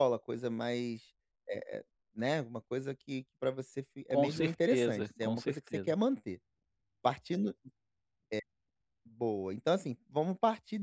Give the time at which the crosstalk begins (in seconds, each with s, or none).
4.1 s